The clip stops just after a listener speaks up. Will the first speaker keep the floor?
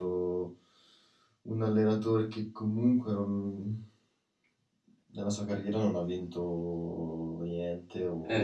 No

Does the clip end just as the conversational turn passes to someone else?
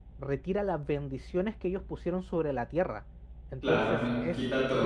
Yes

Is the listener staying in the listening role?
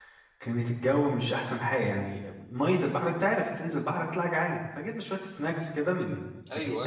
Yes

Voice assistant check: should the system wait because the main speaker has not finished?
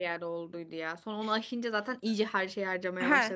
No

